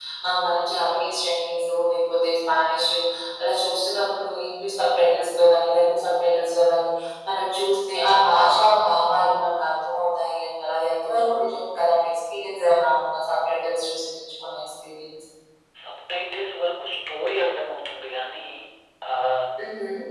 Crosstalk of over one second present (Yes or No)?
No